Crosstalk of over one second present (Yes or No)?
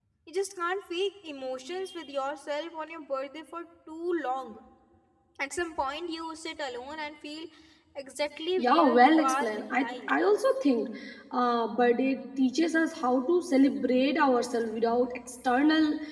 Yes